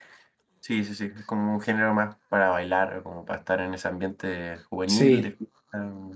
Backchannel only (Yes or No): Yes